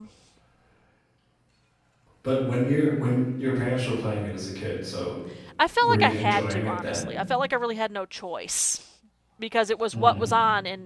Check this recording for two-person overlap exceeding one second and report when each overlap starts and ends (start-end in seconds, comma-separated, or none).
5.8-7.1